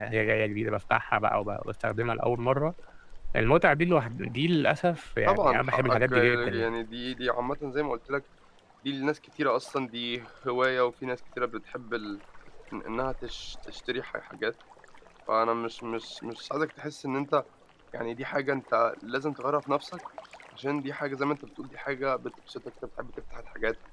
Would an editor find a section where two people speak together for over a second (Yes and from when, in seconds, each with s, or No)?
Yes, from 5.3 s